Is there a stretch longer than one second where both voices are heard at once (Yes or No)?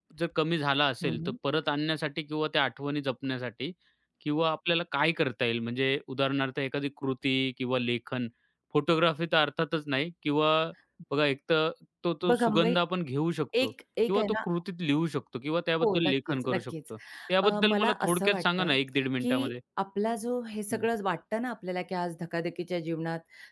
Yes